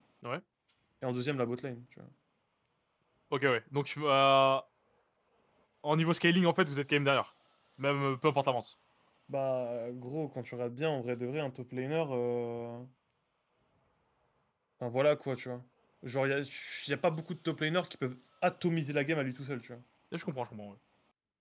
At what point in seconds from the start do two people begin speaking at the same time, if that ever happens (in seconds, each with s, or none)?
none